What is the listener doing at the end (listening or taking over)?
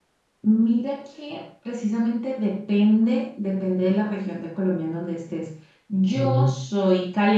listening